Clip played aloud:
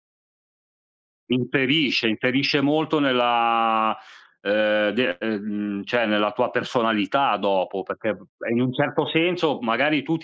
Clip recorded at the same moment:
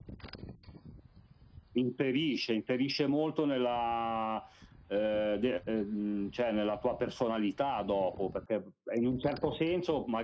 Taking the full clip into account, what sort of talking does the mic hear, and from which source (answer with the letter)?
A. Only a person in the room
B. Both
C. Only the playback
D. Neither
C